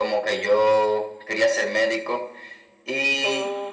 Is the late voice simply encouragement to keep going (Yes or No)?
Yes